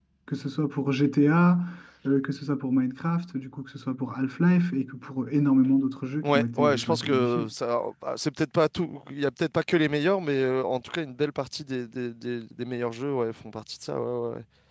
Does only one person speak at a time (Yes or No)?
No